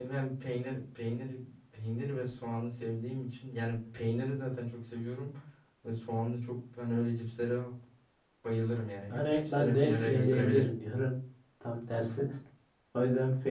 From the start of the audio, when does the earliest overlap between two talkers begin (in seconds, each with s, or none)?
9.1 s